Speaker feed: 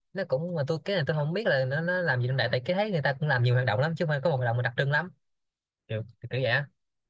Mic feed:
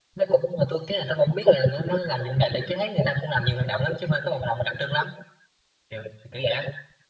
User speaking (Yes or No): No